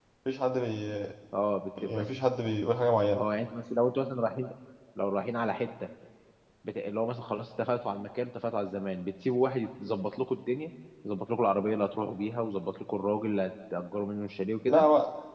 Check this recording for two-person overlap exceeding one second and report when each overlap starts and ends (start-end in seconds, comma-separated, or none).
none